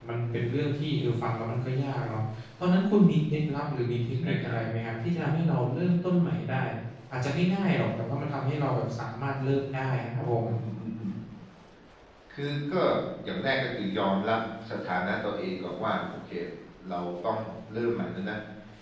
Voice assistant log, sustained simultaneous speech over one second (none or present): none